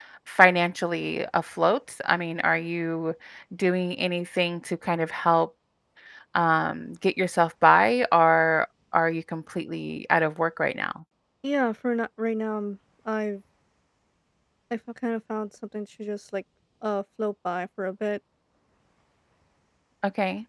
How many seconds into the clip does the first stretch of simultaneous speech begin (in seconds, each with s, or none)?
none